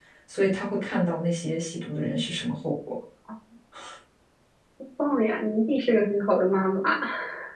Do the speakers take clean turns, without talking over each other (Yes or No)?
Yes